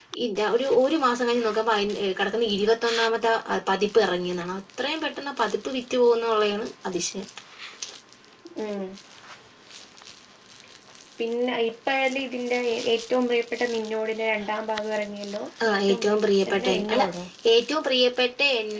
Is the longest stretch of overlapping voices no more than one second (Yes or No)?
No